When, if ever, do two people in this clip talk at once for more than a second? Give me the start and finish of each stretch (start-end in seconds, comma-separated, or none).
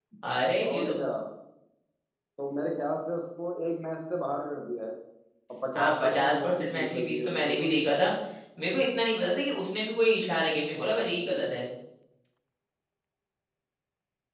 5.8-7.7